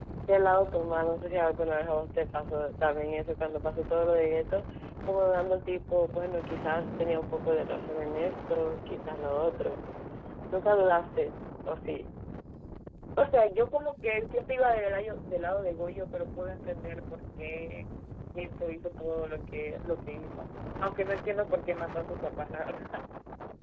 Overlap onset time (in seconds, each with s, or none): none